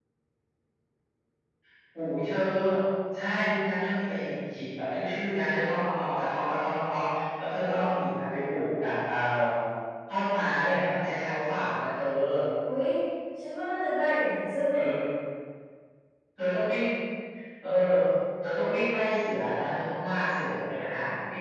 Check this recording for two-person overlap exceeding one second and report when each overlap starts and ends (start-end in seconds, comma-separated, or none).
none